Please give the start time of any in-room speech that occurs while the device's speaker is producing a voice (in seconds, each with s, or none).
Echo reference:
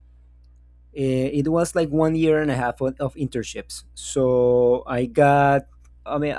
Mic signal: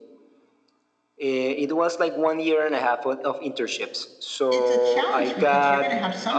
4.5 s